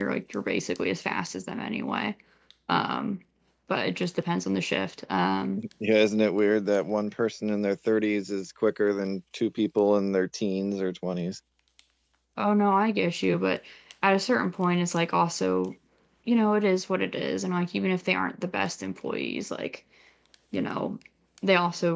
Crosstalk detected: No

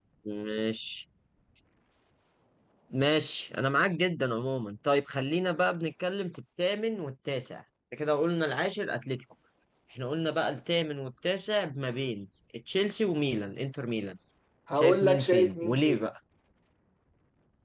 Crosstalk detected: Yes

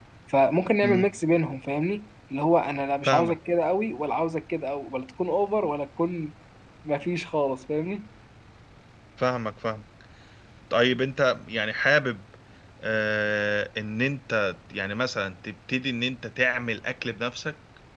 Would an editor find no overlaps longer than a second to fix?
Yes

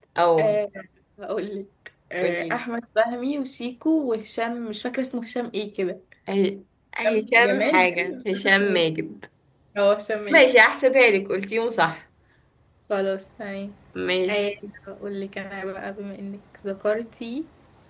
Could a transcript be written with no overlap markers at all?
No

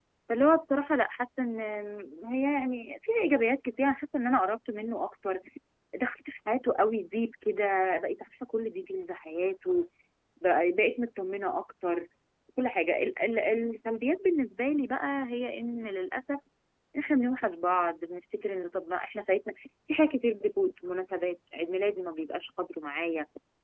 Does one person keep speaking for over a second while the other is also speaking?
No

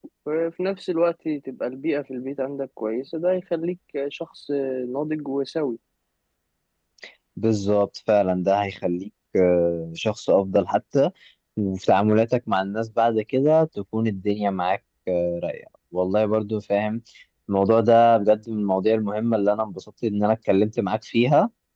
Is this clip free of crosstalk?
Yes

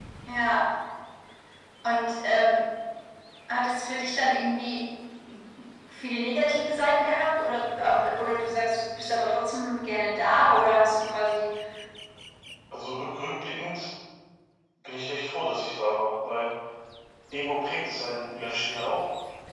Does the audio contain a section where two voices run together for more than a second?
No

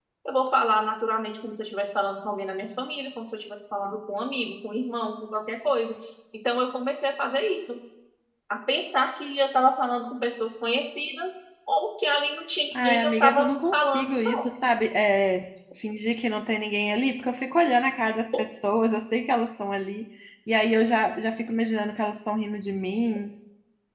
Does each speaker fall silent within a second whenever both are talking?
No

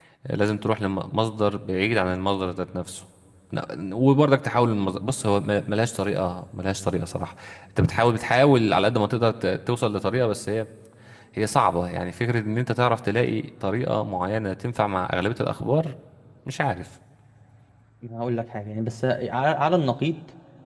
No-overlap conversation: Yes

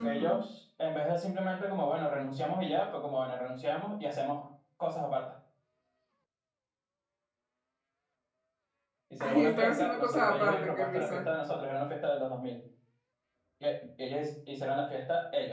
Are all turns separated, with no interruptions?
No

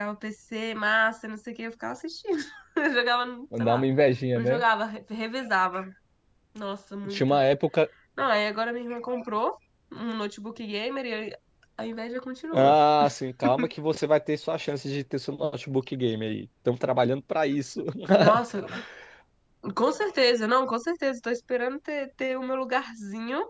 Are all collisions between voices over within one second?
Yes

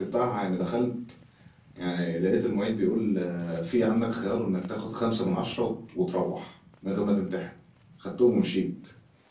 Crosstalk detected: No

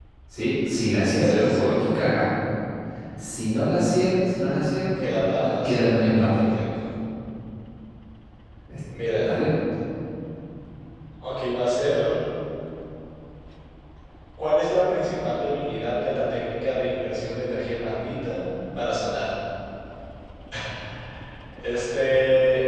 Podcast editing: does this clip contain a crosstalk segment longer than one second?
Yes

